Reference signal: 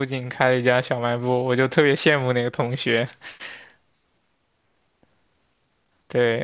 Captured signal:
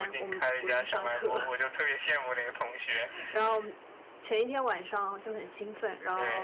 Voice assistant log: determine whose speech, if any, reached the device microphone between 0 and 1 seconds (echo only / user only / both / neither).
both